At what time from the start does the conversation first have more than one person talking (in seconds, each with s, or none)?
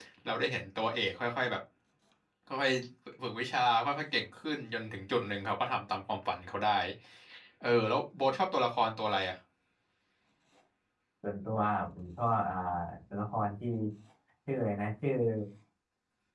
none